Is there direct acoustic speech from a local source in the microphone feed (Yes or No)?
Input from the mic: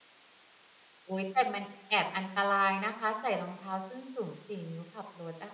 Yes